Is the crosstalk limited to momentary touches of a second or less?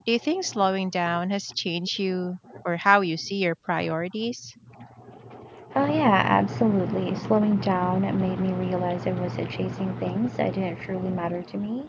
Yes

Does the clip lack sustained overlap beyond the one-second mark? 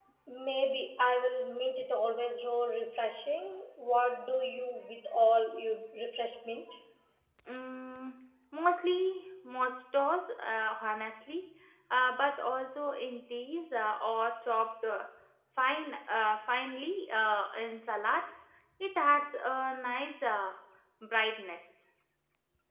Yes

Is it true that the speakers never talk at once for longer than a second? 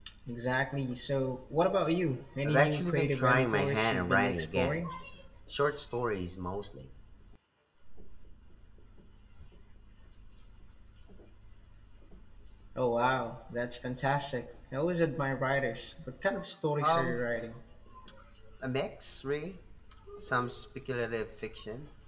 No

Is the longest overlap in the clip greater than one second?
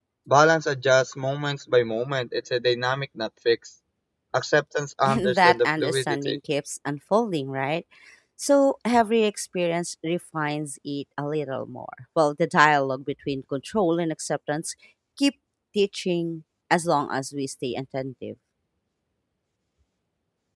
Yes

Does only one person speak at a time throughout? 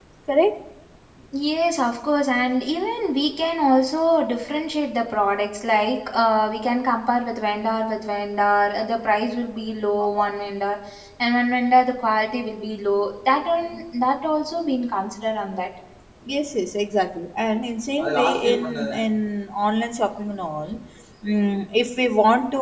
Yes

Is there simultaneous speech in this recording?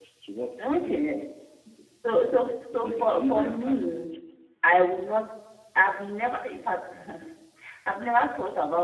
Yes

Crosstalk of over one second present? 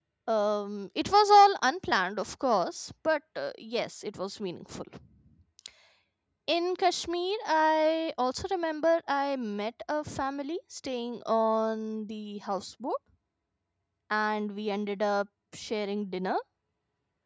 No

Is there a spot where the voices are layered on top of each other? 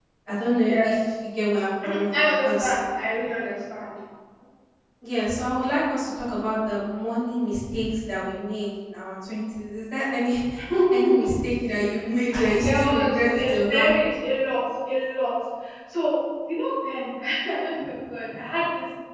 Yes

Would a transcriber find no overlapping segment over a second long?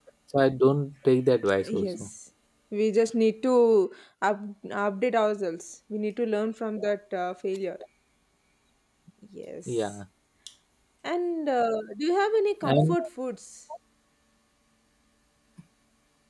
Yes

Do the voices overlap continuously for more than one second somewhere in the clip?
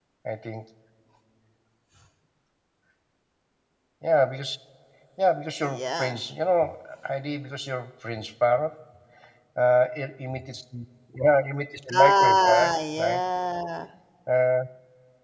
Yes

